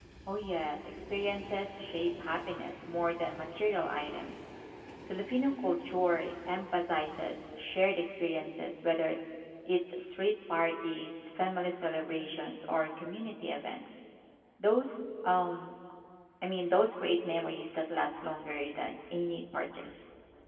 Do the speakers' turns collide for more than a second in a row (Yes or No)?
No